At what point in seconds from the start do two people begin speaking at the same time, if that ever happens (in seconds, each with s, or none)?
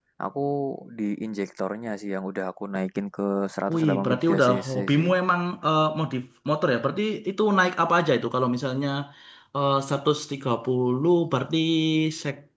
3.7 s